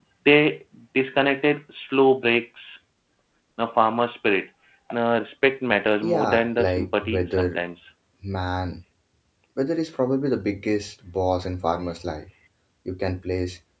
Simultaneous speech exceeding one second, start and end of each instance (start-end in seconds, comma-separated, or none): 6.1-7.6